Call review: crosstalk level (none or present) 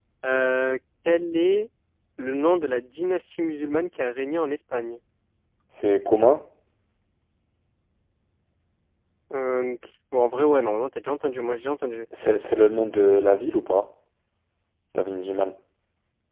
none